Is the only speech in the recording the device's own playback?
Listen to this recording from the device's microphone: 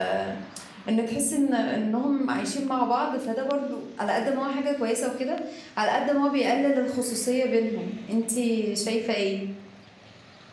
No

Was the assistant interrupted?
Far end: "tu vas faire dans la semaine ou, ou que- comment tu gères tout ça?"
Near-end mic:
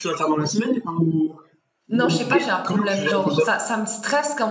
Yes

